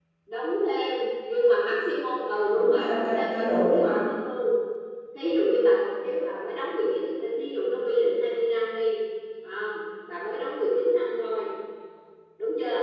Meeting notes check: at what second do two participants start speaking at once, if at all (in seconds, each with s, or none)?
2.5 s